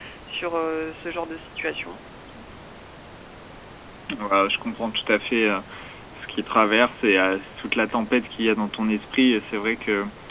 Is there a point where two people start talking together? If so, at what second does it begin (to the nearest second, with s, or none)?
none